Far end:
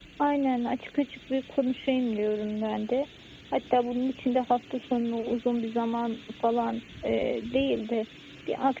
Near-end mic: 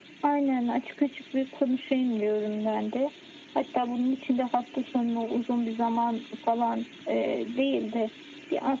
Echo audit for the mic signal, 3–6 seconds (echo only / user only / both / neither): echo only